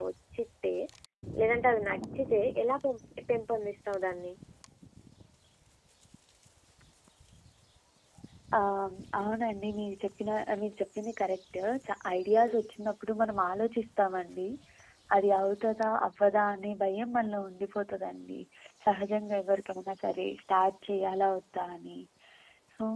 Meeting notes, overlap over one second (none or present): none